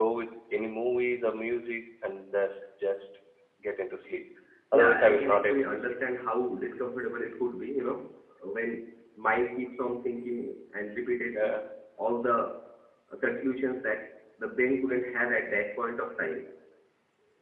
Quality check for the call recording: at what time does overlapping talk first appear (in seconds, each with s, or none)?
4.7 s